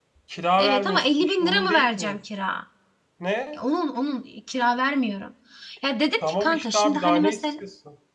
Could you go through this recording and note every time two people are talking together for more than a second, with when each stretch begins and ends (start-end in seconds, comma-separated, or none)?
0.6-2.2, 6.2-7.4